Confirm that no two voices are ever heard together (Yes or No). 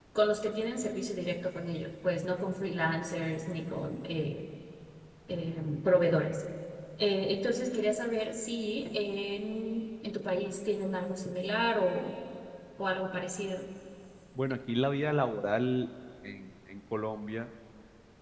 Yes